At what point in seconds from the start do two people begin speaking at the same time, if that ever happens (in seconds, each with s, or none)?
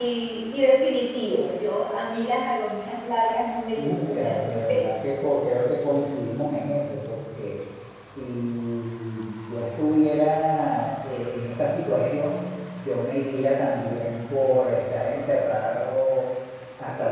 3.8 s